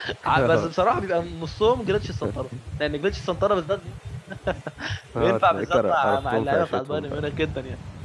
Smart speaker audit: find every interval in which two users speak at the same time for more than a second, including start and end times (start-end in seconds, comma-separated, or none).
5.2-7.2